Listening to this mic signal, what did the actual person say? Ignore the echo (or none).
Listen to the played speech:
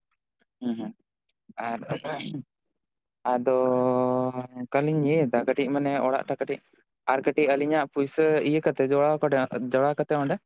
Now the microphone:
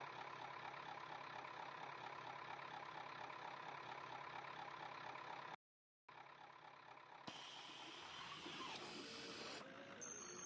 none